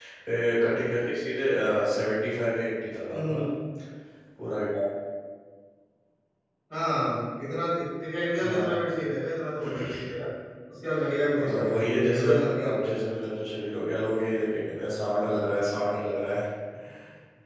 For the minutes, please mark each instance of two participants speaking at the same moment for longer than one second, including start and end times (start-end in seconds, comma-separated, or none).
11.4-12.8